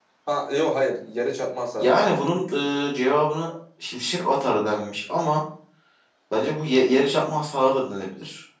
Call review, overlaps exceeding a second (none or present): none